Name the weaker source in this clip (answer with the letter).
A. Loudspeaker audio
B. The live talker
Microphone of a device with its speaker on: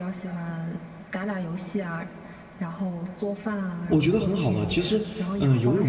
A